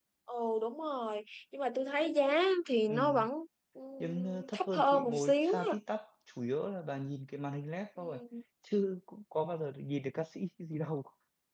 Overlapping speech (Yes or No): Yes